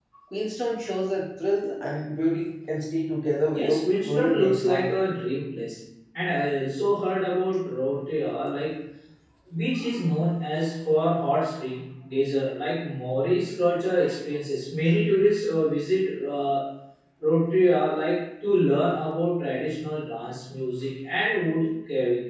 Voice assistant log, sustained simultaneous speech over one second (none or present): present